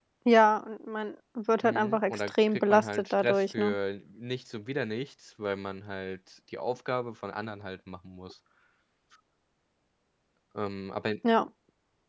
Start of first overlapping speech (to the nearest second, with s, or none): 2 s